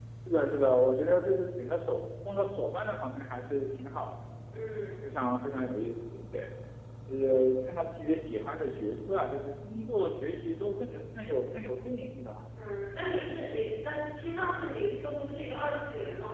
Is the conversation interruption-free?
Yes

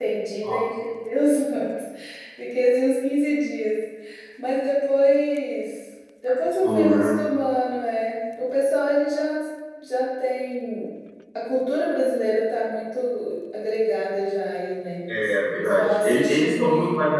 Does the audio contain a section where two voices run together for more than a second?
Yes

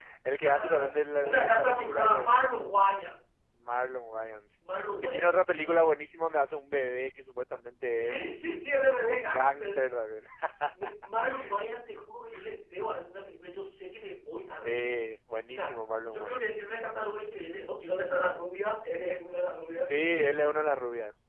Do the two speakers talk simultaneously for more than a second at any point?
Yes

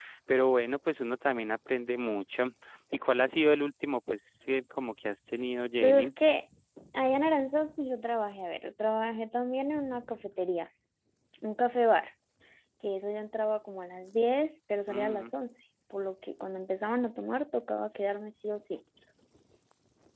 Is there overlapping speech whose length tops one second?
No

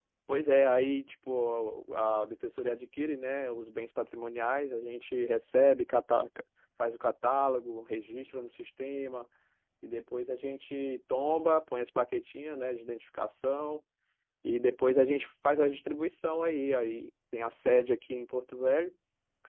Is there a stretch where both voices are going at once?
No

